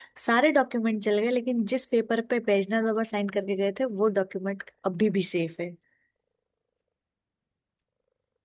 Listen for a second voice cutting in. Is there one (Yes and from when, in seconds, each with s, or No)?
No